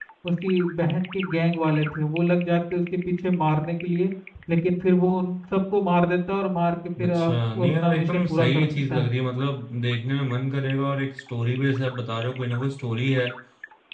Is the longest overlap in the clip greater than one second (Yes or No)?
Yes